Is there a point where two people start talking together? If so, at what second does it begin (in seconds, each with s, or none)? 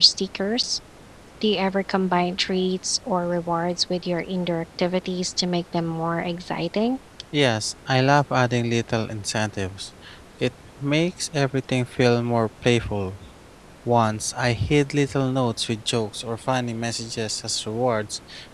none